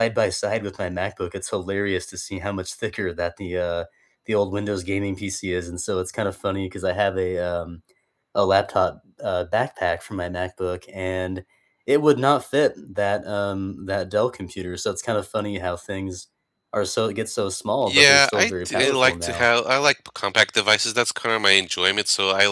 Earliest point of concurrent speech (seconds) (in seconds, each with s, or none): 17.9 s